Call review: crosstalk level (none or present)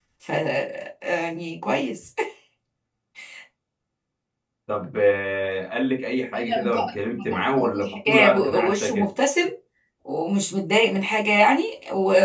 present